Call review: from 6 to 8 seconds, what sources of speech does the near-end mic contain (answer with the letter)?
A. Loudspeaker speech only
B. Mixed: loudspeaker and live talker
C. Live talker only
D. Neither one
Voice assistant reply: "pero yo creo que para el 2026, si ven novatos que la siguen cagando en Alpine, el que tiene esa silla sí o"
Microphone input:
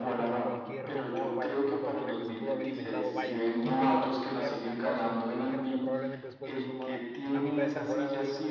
B